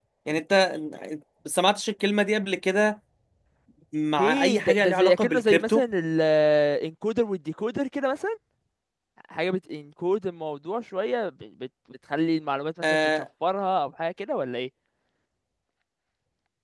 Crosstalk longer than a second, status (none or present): present